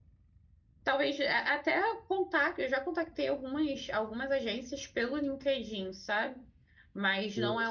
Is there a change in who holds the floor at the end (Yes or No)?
No